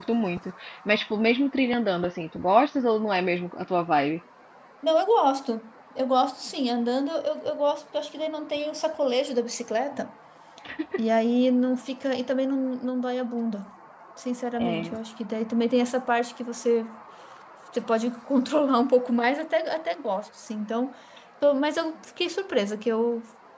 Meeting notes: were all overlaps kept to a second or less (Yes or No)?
Yes